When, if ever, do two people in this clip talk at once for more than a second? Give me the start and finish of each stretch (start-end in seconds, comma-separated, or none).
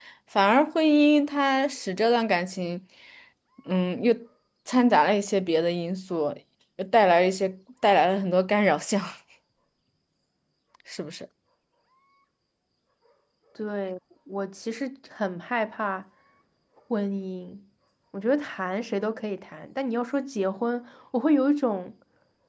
none